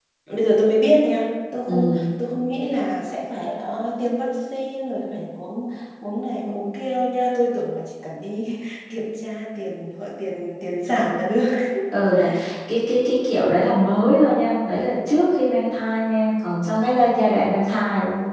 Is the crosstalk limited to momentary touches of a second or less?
Yes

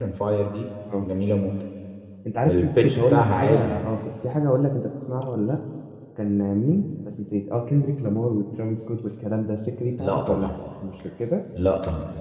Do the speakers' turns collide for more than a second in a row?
Yes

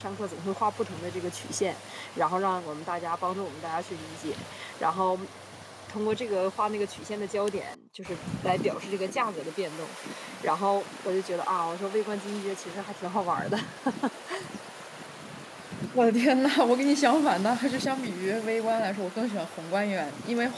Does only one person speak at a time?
Yes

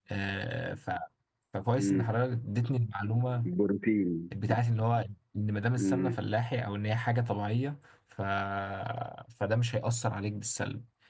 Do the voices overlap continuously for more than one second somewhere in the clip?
No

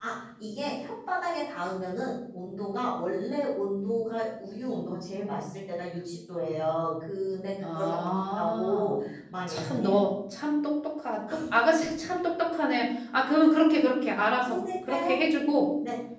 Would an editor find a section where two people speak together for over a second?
Yes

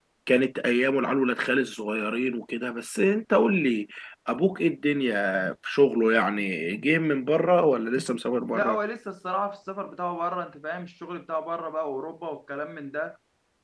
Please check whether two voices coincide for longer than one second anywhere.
No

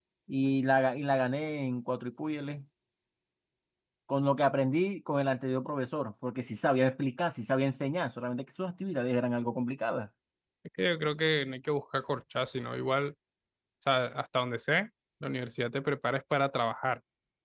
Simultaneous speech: No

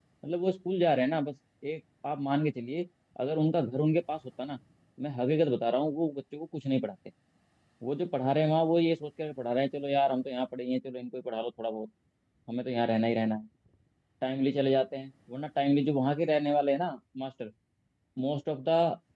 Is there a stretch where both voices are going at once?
No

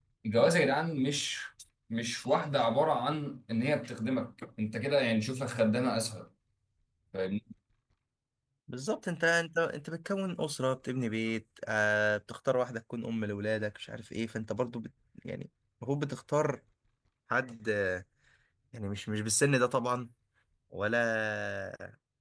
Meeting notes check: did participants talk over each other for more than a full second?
No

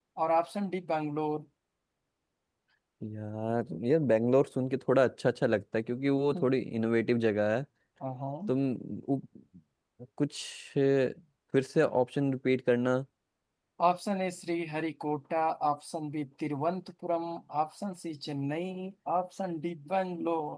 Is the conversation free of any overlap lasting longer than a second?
Yes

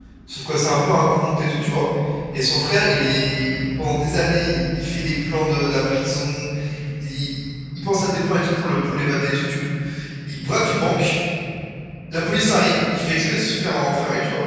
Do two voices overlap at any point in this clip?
No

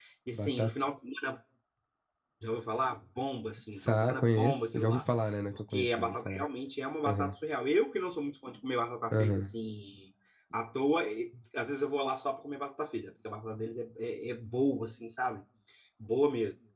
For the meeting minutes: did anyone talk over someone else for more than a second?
Yes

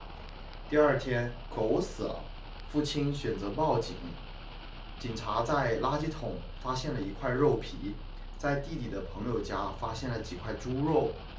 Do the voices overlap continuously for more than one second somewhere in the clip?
No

